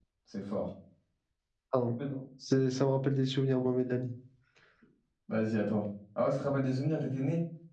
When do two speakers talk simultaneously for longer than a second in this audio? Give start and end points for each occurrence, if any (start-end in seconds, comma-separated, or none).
none